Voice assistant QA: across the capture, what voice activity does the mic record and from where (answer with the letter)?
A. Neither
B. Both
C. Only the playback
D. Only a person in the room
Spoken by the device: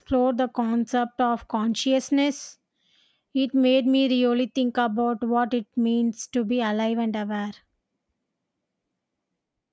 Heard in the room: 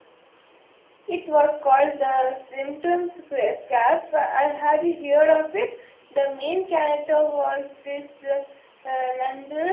D